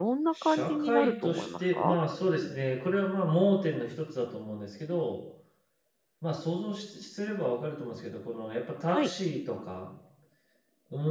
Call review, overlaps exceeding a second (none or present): present